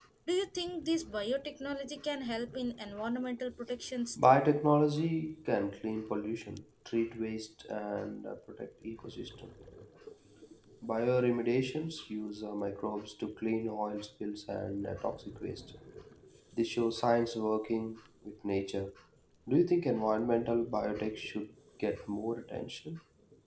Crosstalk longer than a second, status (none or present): none